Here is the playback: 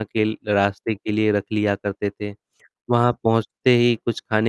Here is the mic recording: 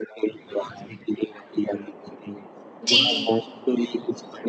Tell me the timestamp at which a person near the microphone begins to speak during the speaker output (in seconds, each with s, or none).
2.8 s